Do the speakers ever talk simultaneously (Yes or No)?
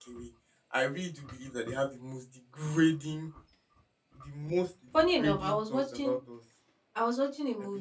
Yes